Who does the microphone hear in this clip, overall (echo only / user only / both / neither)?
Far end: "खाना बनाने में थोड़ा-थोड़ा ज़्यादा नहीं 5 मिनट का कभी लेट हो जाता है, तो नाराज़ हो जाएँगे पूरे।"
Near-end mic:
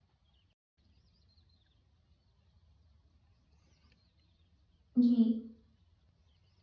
user only